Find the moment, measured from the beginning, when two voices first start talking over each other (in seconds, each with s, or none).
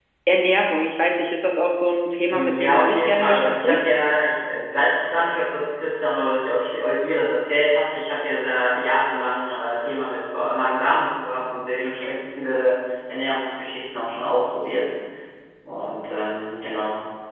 2.3 s